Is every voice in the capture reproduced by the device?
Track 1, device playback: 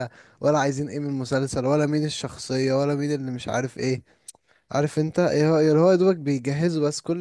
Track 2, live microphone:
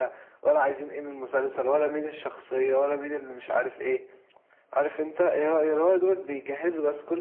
Yes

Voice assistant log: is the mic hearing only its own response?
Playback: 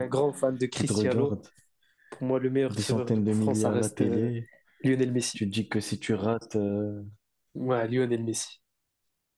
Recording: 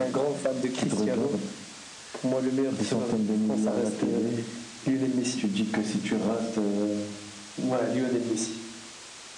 Yes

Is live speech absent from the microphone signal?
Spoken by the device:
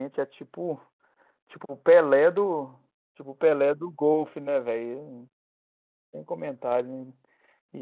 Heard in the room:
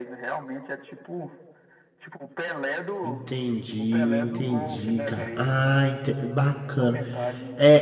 No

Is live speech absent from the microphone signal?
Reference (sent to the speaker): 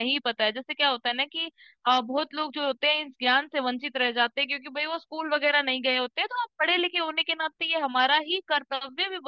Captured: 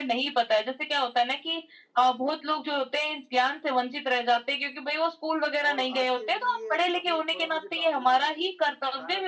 No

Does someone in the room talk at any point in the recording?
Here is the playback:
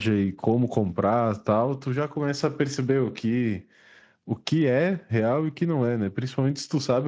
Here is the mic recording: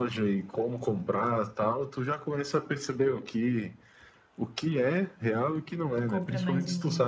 Yes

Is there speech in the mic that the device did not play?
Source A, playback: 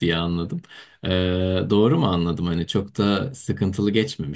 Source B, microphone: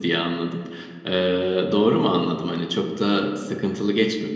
No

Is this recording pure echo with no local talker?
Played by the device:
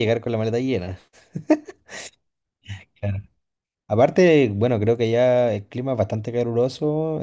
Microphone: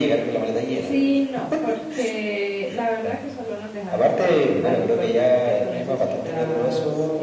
No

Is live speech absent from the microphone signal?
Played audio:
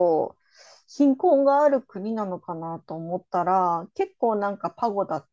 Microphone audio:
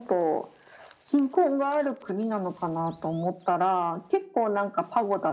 Yes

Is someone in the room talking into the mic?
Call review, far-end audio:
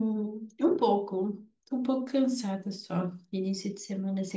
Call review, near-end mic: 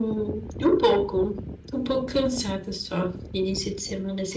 No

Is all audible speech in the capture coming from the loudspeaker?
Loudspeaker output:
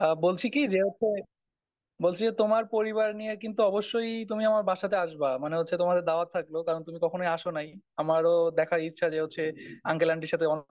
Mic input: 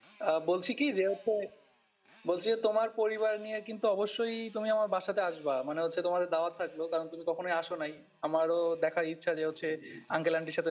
Yes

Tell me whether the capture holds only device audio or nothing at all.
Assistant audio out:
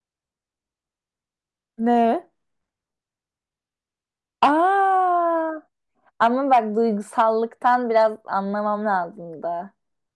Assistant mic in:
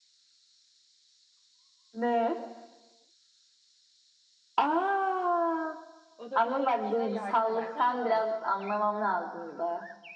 No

